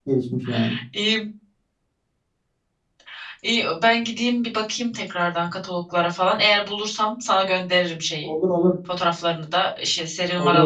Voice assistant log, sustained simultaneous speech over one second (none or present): none